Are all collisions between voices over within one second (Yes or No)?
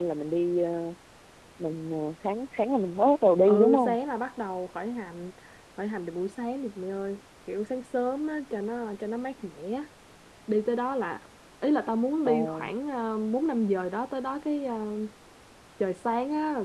Yes